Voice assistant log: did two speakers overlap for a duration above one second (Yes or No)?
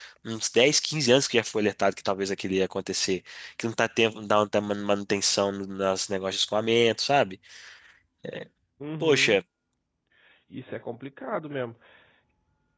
No